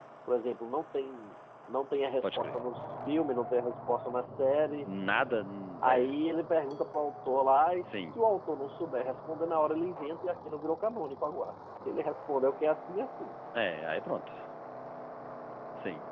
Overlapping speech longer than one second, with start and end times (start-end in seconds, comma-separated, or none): none